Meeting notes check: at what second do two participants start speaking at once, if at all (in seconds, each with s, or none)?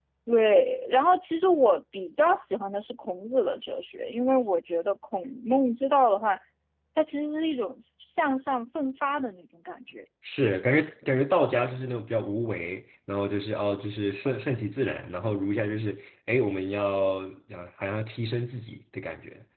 none